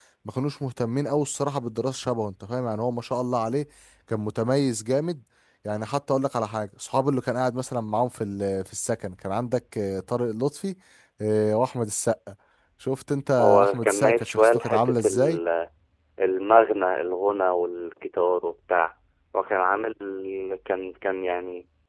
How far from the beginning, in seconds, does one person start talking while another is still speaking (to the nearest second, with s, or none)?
13 s